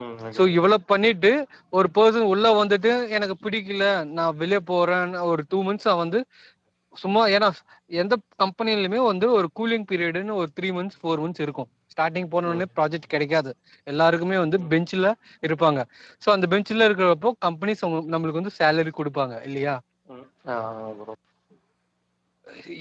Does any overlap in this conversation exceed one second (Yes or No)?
No